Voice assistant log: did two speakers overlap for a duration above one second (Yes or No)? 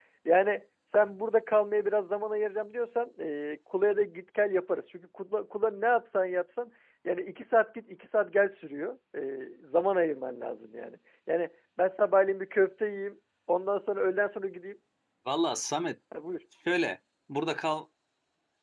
No